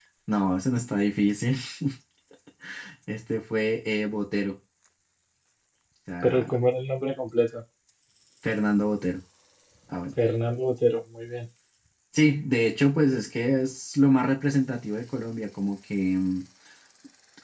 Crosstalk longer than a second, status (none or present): none